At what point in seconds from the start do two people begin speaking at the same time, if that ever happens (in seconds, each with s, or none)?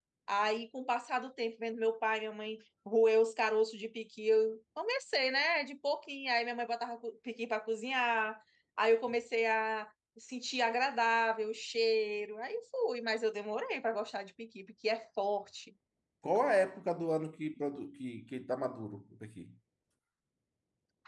none